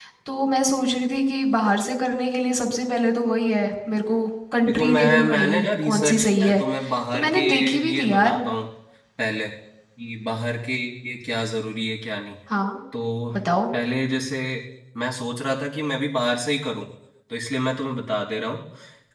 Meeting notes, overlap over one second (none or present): present